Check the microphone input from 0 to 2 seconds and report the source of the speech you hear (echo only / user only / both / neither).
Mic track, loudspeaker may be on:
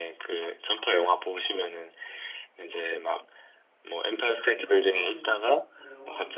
echo only